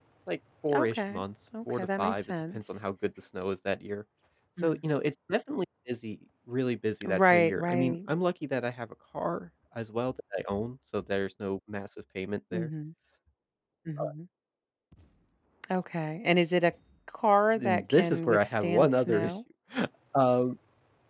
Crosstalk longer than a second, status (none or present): present